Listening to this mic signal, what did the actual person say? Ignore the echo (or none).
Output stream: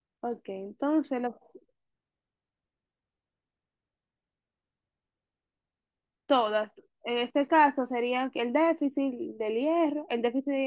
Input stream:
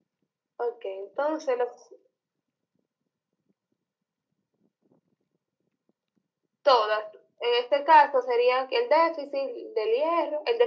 none